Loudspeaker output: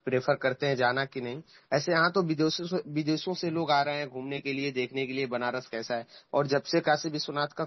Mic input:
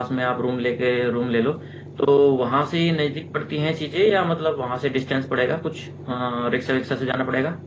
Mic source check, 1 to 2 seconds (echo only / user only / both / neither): user only